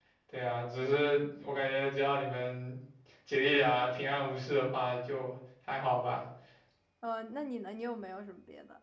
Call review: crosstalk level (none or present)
none